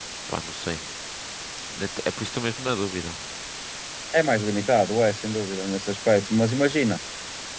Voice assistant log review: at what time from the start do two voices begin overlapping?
none

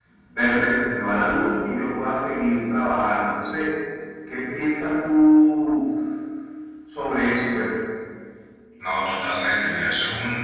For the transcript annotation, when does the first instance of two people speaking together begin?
none

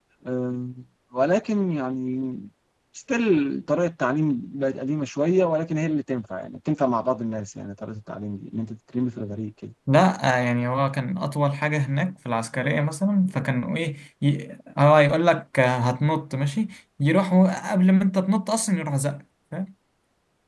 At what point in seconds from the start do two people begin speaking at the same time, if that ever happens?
none

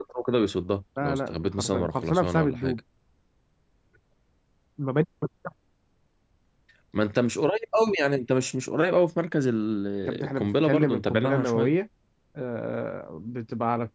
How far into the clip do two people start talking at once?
1.0 s

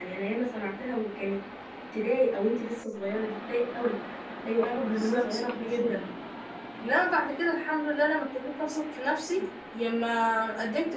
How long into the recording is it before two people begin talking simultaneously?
4.8 s

